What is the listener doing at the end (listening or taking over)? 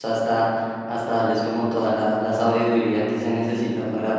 listening